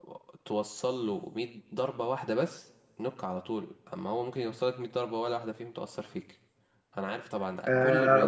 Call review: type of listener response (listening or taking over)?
taking over